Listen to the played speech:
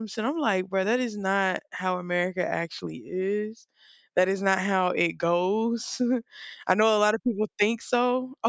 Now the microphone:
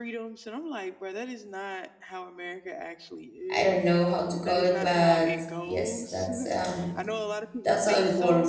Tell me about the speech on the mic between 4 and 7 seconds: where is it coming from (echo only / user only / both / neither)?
both